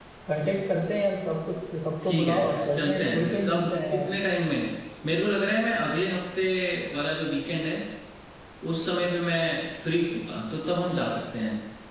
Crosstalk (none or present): present